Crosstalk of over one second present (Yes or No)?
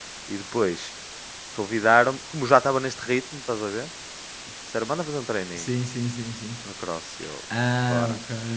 No